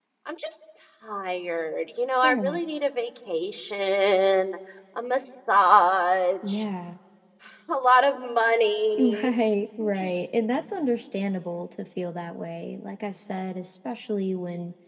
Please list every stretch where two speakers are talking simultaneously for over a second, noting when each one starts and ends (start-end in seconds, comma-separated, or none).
none